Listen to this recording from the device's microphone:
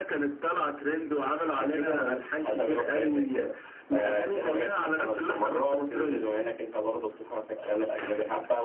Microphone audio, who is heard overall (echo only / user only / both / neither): both